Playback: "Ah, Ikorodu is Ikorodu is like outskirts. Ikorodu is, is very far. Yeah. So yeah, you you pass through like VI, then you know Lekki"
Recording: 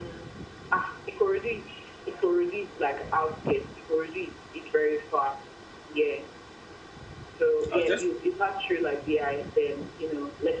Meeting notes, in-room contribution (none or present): present